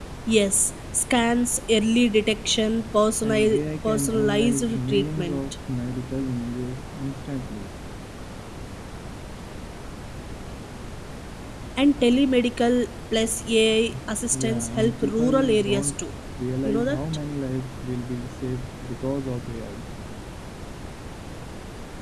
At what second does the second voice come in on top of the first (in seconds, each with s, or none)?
3.2 s